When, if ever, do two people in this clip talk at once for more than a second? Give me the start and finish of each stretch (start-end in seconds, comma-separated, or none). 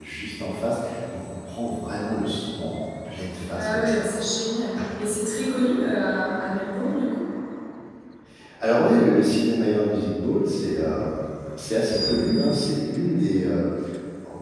none